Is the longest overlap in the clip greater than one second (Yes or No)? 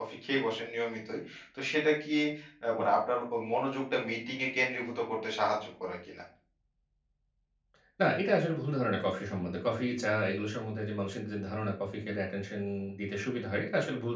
No